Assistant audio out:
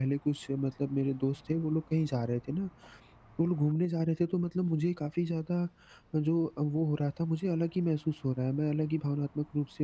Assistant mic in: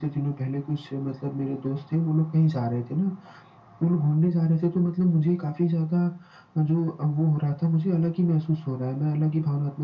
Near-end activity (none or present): none